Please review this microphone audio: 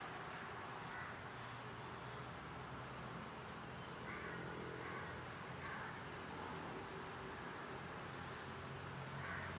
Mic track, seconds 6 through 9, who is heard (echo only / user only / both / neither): neither